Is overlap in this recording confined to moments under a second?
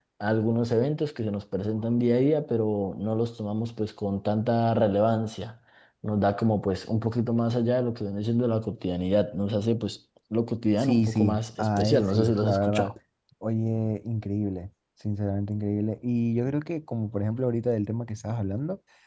No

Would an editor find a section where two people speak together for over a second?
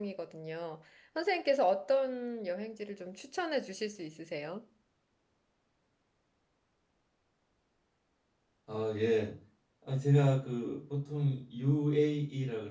No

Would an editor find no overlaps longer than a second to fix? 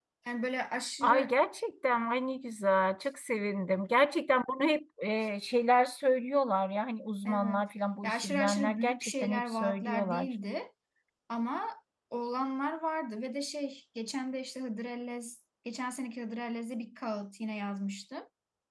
No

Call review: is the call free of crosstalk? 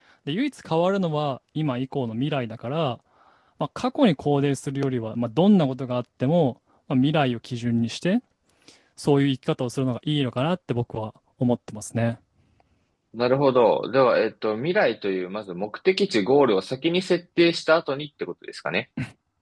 Yes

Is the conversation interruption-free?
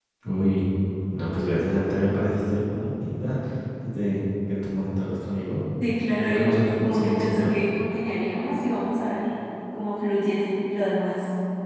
No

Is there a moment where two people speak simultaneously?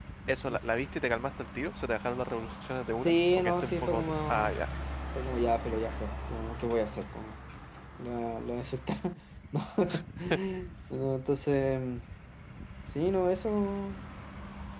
Yes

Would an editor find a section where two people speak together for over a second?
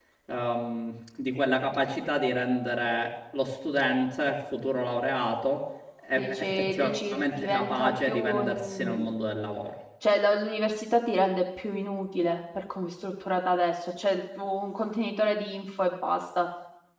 Yes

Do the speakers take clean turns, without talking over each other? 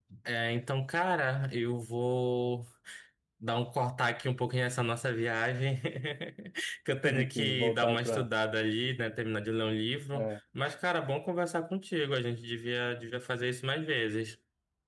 No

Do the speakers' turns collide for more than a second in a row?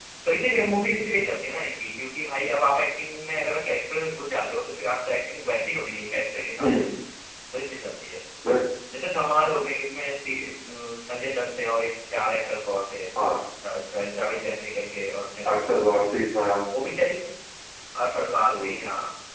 No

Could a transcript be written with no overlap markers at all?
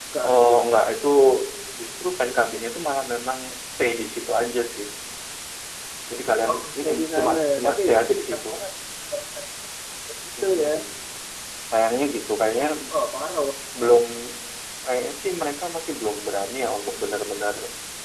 No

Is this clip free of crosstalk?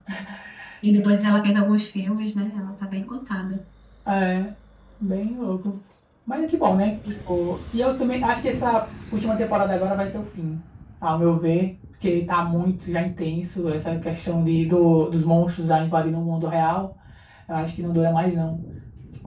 Yes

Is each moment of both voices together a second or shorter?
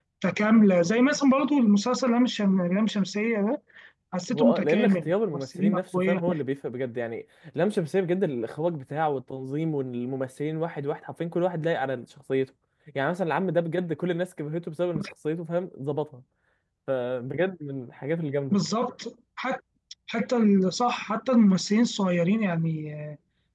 No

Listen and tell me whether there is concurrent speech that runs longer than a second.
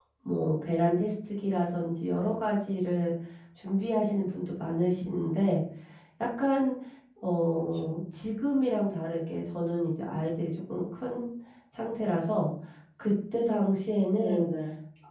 No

